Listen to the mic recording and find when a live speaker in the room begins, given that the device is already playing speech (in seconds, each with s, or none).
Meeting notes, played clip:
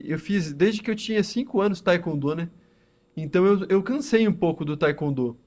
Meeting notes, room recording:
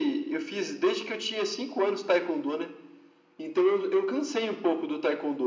none